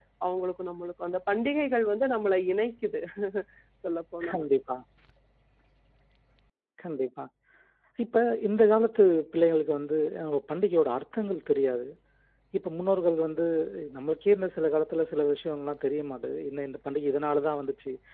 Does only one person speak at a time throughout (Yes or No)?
Yes